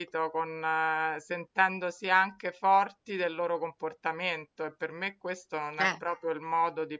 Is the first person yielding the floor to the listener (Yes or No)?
No